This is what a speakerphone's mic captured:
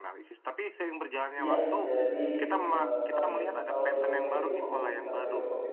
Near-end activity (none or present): present